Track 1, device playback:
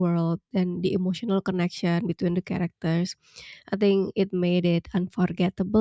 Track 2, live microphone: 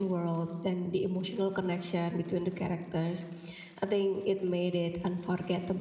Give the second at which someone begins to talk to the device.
none

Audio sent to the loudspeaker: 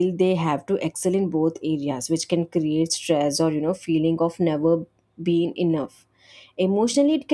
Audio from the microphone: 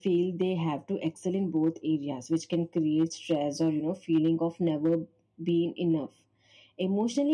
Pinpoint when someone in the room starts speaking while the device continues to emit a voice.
none

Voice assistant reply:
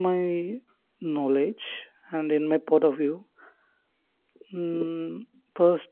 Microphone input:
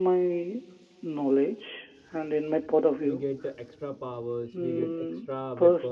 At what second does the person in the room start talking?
3.0 s

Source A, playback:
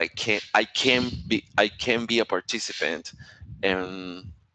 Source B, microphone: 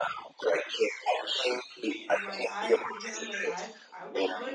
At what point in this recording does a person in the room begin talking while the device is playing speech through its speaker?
2.0 s

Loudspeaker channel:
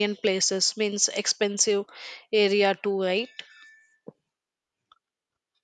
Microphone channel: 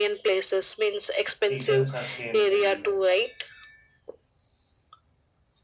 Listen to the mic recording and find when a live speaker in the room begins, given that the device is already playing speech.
1.5 s

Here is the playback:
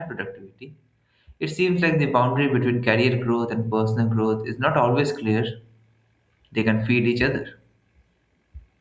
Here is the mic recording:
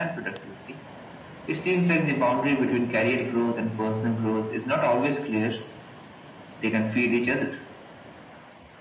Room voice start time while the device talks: none

